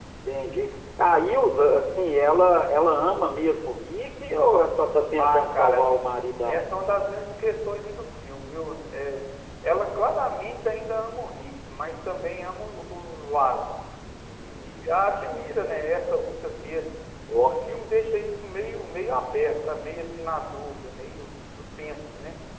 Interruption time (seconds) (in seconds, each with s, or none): 5.2 s